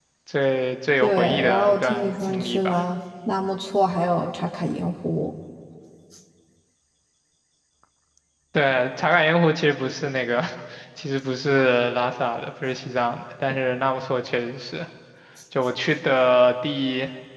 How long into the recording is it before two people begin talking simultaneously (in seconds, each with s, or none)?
1.0 s